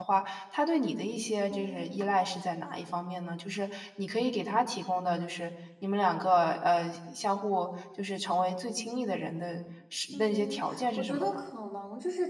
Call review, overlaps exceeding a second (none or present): present